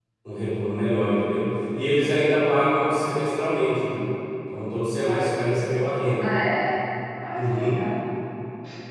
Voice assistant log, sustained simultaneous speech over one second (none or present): none